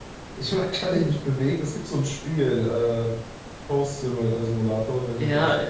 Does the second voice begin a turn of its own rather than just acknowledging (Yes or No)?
Yes